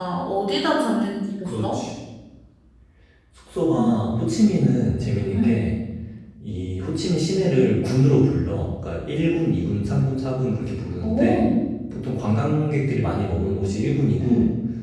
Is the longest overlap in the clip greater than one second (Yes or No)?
No